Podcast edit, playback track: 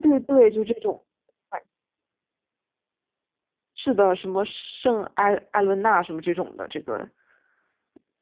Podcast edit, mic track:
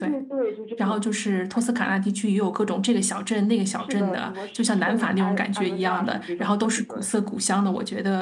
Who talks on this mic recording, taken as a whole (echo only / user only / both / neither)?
both